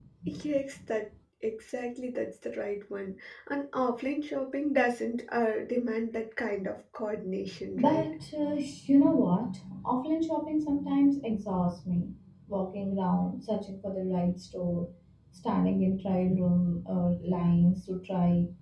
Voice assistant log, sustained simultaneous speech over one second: none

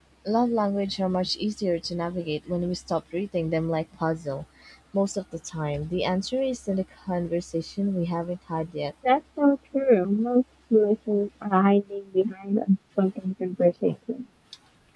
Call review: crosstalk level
none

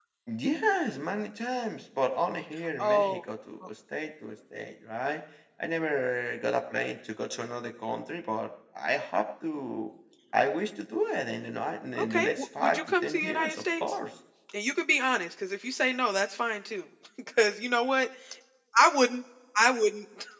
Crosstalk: present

